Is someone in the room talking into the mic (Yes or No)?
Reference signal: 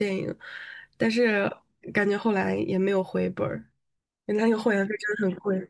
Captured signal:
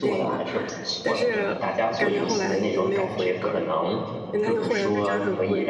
Yes